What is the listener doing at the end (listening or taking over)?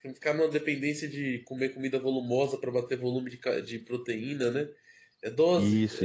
taking over